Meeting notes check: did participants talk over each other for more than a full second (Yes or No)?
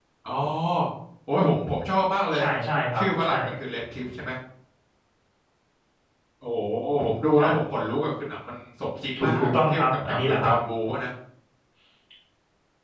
Yes